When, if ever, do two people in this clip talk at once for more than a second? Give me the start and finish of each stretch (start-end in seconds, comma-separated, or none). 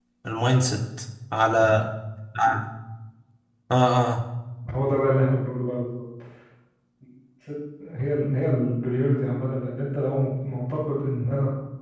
none